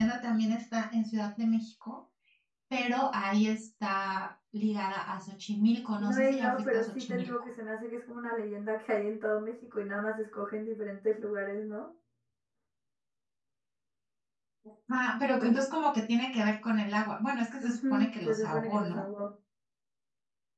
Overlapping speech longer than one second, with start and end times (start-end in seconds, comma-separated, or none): 6.0-7.3, 17.6-19.0